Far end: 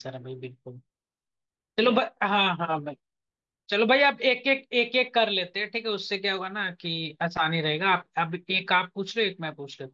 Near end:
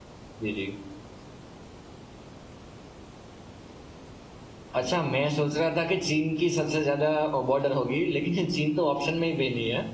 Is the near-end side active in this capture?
Yes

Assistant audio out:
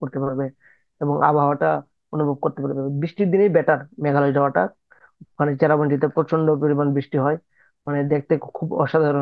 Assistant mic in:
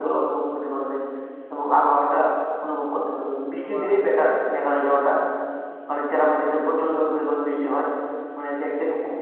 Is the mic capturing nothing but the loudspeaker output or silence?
No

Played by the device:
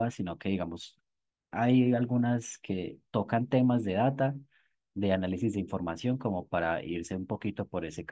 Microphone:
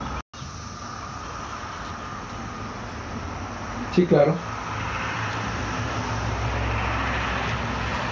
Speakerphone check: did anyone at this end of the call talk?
Yes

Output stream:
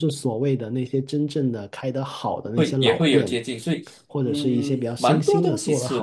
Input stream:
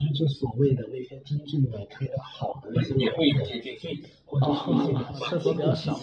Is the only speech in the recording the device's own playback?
No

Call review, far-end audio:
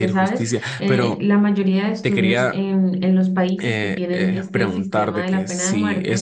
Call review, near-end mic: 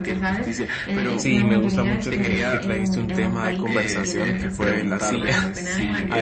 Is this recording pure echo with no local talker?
No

